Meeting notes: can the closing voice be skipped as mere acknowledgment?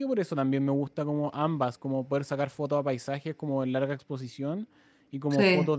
Yes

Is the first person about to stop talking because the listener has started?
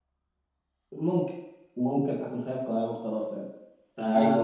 No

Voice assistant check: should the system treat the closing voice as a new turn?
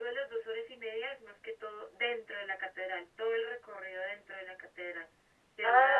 Yes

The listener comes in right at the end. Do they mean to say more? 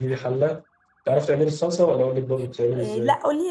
Yes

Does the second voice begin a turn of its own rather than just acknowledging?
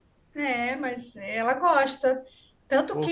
No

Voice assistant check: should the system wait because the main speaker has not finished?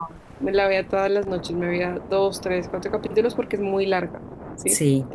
Yes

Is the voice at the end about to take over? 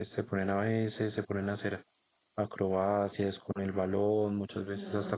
Yes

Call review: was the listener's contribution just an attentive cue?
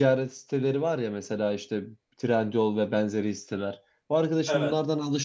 Yes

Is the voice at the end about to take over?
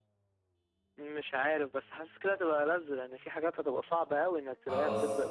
Yes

